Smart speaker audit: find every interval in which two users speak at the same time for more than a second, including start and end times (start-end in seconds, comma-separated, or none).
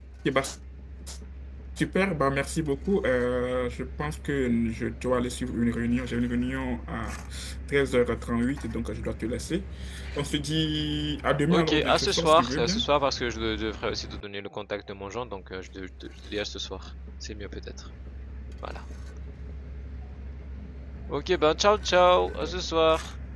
11.5-12.8